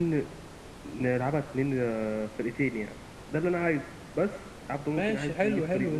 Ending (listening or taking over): taking over